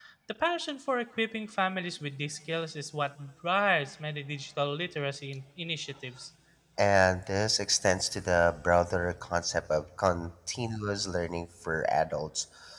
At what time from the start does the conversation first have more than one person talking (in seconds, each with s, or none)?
none